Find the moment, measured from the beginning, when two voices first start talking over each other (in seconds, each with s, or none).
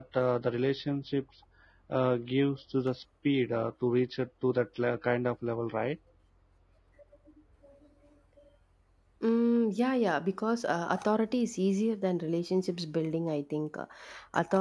none